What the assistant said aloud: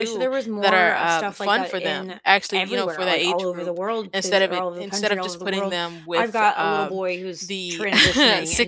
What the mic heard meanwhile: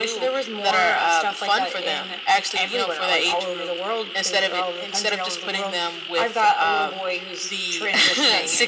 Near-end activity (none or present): none